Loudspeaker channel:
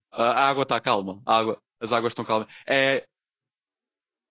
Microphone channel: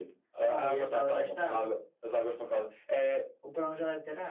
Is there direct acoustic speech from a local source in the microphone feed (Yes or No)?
Yes